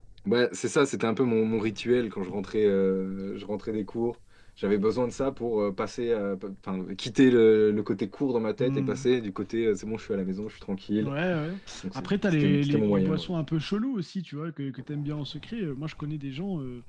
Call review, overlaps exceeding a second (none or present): present